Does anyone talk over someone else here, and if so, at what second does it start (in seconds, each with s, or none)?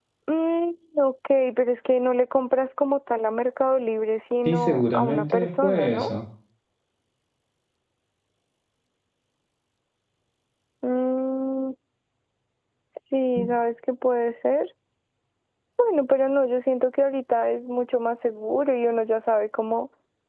4.5 s